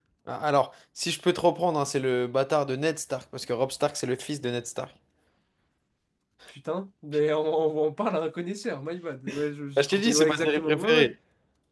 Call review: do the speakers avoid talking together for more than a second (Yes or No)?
No